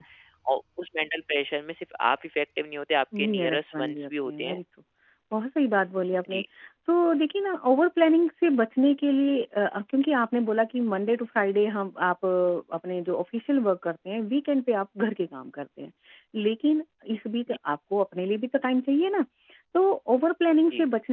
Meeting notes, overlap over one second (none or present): present